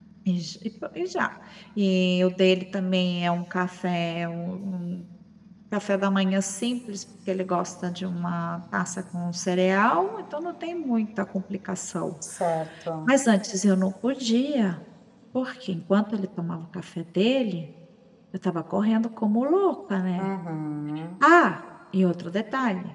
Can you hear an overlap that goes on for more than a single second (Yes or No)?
No